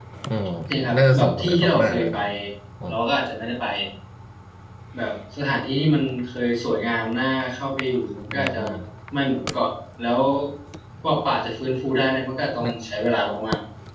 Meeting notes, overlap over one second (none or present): present